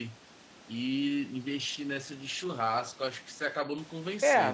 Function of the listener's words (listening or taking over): taking over